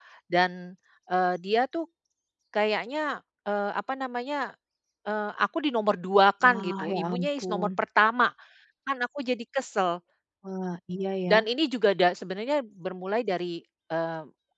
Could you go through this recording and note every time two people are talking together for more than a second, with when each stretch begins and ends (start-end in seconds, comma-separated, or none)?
6.5-7.7